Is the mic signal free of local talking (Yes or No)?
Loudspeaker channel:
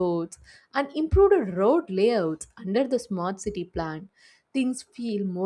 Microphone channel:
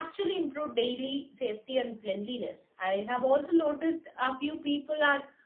No